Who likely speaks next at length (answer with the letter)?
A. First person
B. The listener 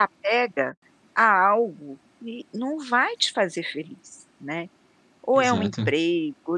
A